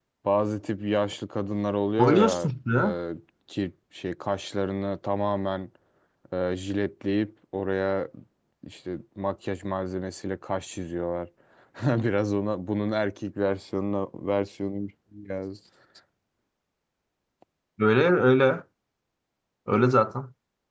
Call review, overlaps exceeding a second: none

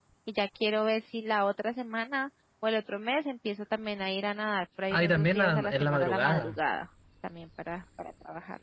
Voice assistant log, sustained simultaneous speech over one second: present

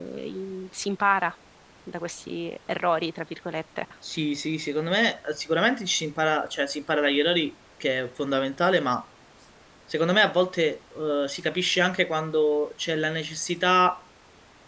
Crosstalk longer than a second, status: none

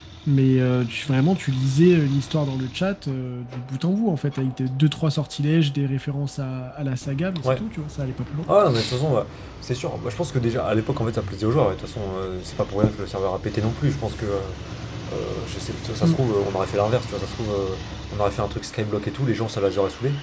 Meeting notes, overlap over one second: none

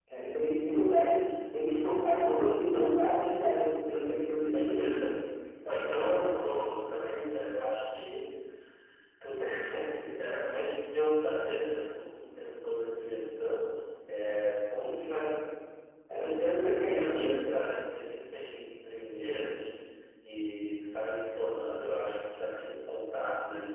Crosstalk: present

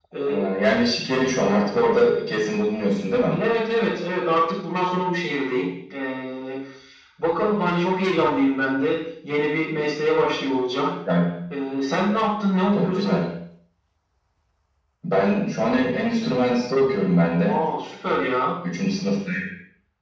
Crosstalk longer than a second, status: none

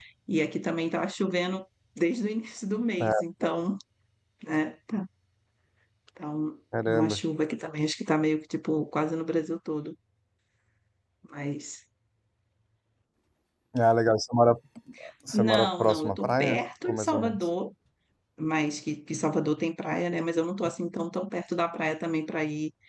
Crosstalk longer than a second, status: present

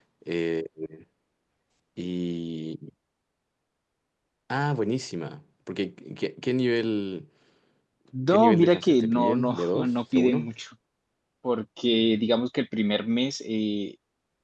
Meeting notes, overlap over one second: present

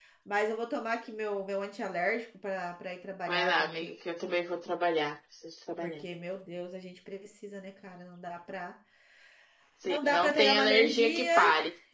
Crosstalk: present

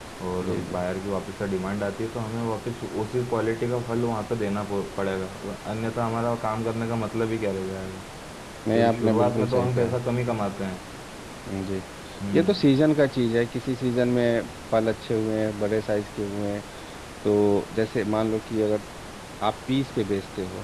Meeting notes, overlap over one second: present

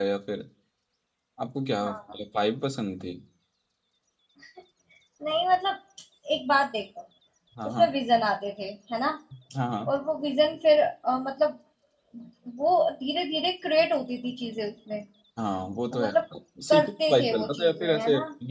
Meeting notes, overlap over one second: present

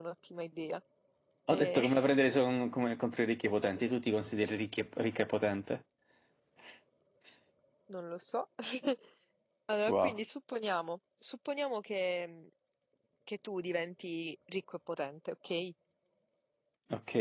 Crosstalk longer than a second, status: none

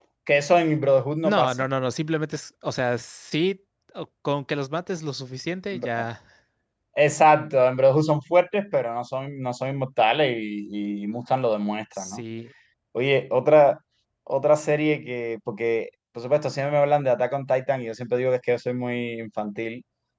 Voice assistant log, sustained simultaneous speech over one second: none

